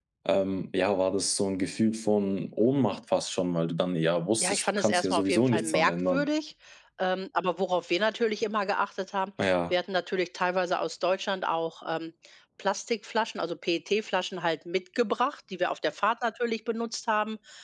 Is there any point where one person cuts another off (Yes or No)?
Yes